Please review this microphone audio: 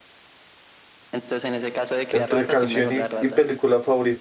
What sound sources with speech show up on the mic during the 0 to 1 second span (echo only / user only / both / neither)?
neither